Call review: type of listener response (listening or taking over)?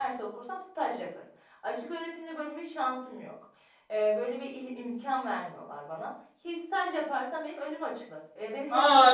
taking over